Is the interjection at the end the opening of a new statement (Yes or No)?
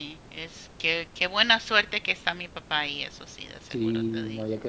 Yes